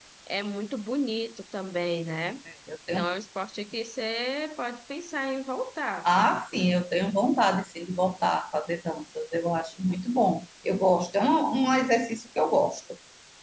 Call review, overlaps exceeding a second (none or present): none